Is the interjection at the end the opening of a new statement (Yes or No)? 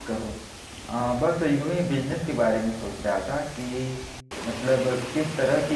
No